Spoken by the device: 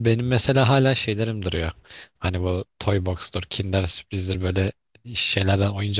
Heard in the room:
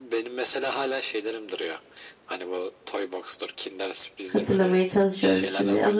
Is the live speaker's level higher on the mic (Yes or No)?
Yes